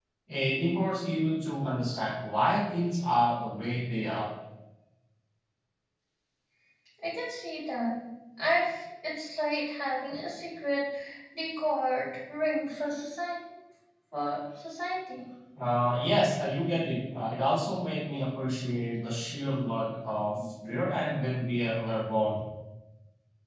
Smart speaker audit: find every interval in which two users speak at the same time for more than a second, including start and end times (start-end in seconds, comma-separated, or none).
none